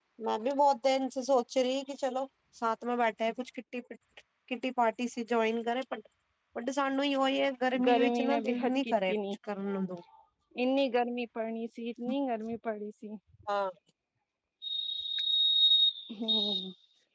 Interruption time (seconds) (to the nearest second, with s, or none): 8 s